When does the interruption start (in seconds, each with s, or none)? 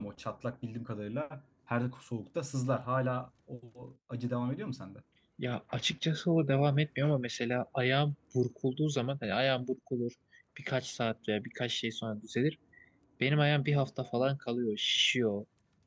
none